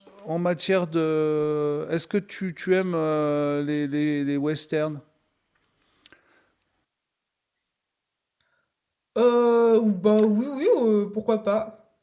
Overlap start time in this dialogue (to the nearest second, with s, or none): none